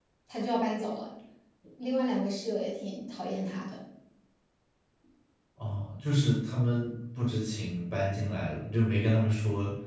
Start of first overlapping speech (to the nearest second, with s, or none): none